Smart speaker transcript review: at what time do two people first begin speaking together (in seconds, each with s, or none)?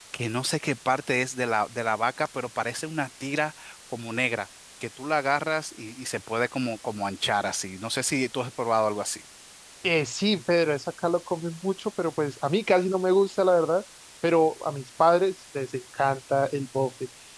none